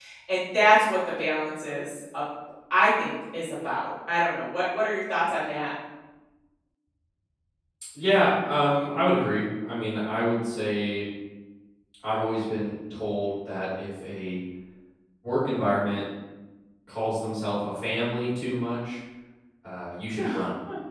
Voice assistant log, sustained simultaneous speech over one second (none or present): none